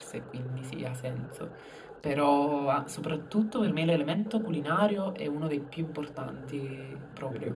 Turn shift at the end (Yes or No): Yes